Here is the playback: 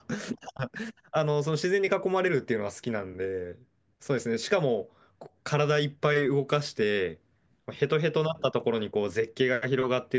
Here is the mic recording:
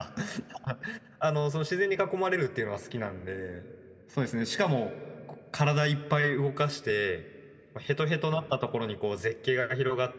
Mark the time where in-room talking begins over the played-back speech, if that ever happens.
none

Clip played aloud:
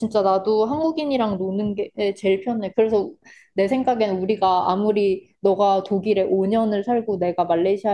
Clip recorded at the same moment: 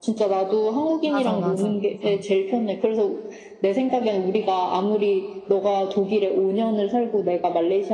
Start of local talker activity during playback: 1 s

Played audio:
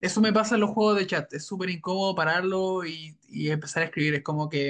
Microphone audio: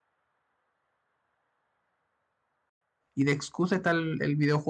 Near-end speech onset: 3 s

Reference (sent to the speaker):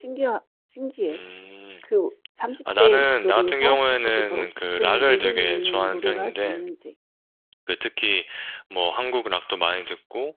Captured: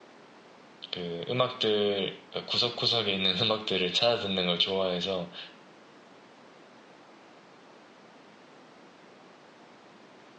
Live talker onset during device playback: 1 s

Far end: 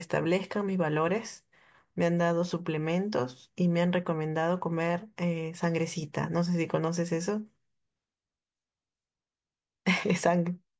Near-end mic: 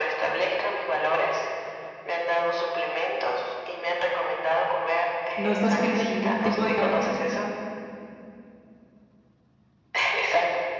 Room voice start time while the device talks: 5 s

